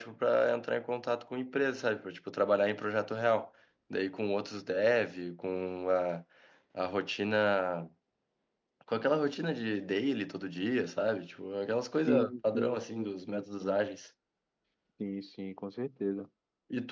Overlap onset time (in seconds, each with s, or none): 12.1 s